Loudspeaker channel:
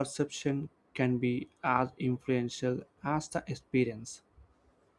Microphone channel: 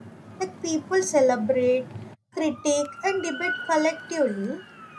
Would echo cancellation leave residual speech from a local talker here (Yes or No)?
Yes